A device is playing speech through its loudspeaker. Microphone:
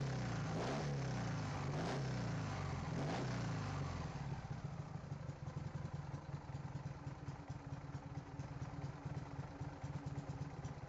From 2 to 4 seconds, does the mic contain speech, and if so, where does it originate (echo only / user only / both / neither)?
neither